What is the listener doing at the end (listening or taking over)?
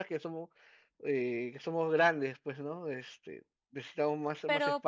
taking over